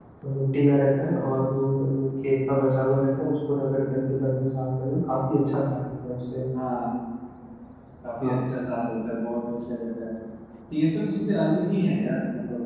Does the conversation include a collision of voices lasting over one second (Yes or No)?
No